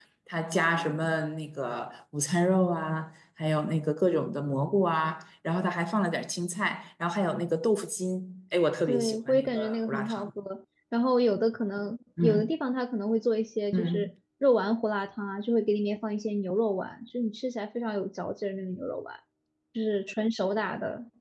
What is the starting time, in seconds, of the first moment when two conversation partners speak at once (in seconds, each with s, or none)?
8.9 s